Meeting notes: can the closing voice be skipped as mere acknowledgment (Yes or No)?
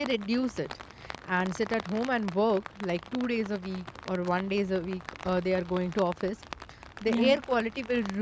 Yes